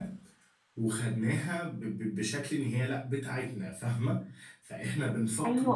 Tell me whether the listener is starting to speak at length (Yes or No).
Yes